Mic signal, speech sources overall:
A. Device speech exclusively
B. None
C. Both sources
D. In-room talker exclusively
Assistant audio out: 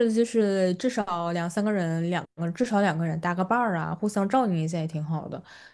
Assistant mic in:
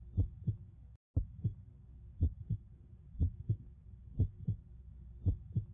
B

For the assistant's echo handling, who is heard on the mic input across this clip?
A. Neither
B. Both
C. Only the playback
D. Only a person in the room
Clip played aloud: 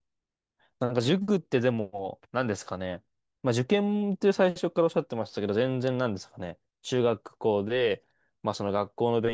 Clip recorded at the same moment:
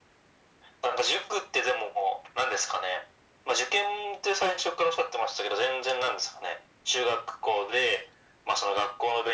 C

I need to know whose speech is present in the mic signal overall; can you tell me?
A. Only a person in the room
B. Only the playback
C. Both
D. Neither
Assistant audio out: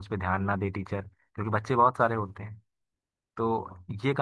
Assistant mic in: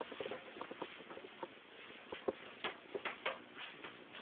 D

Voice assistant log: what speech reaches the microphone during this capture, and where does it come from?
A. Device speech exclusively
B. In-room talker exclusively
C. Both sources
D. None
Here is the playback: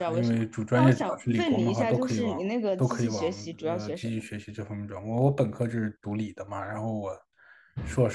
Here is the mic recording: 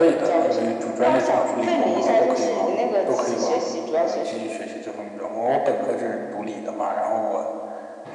A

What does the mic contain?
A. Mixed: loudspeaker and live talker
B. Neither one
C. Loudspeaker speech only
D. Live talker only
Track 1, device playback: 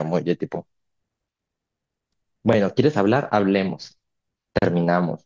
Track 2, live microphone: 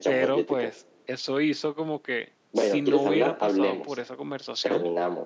A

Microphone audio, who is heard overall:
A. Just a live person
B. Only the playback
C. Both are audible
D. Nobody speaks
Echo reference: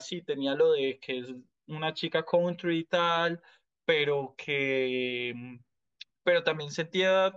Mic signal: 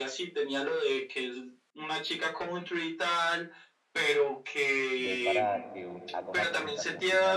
C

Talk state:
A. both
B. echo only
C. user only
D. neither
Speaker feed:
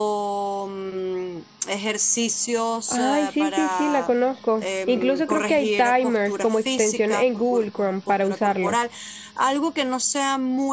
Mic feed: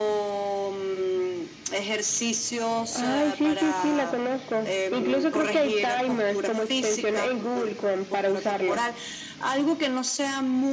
B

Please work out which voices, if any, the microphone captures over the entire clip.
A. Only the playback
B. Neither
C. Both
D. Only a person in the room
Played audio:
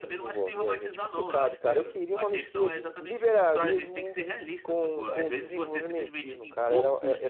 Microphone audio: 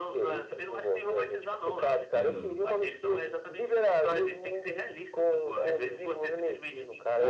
C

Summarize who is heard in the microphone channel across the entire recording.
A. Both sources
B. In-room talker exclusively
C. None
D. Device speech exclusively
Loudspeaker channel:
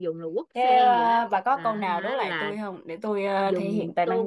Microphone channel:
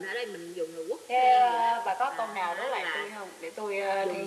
D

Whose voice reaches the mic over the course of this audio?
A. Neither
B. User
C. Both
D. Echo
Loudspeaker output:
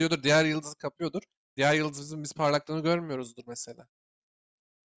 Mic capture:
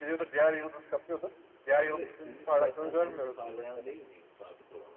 C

